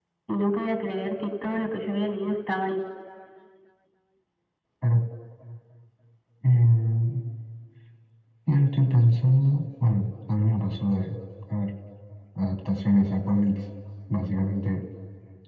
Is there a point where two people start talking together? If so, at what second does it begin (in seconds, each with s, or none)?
none